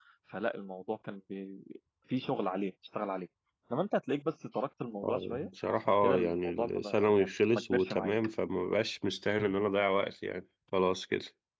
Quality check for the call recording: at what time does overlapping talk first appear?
5.0 s

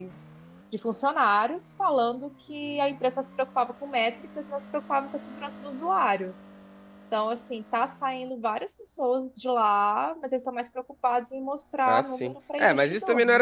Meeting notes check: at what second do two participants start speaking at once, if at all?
11.9 s

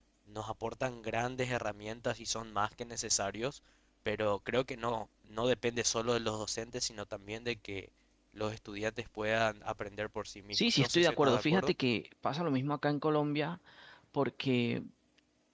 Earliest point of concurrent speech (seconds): 10.5 s

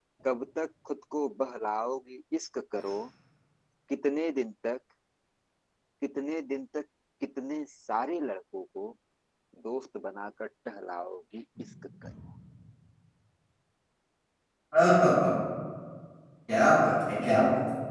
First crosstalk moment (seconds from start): none

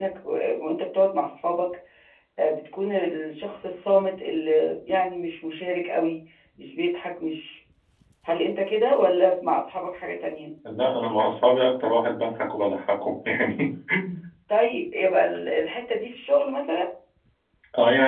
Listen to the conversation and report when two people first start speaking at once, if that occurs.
none

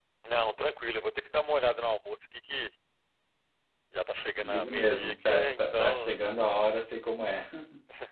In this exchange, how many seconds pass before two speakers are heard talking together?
4.4 s

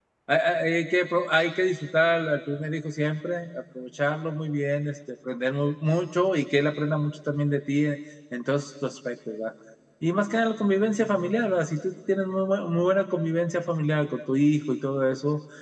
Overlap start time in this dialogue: none

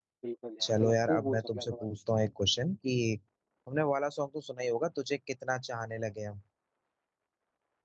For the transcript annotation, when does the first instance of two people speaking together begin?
0.6 s

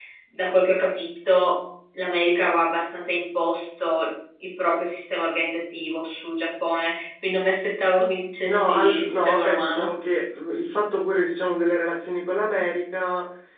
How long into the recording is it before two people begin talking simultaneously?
8.4 s

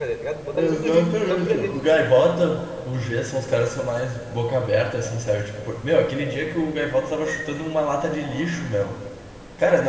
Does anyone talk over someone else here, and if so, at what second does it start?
0.5 s

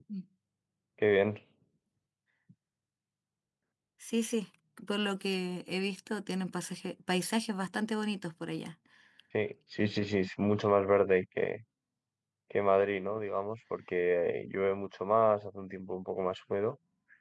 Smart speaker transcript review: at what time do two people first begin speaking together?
none

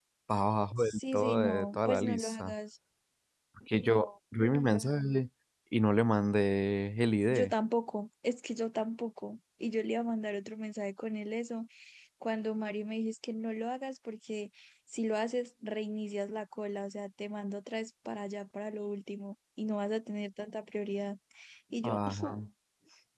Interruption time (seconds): 0.8 s

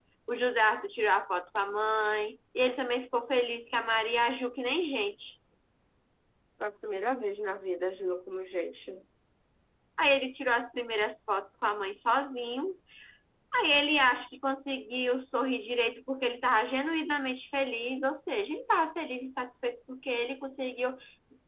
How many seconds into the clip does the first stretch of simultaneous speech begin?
none

